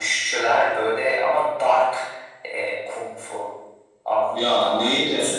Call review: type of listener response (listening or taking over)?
listening